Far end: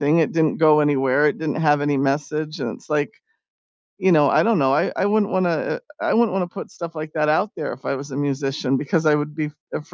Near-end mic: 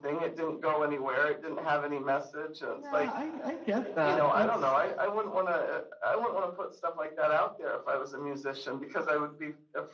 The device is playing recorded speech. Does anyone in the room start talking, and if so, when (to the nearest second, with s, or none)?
3 s